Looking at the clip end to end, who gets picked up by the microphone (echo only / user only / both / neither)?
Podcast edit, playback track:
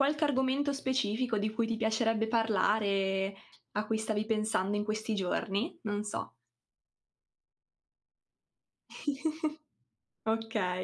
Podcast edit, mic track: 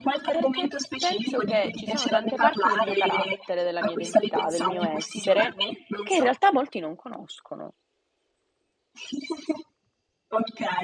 both